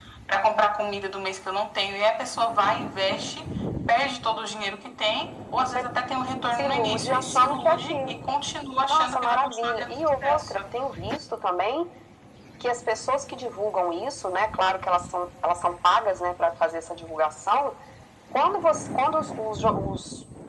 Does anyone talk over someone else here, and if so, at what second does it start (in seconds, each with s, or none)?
6.5 s